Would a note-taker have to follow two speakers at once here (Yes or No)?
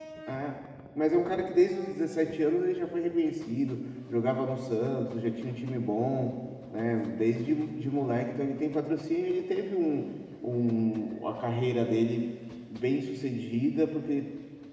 No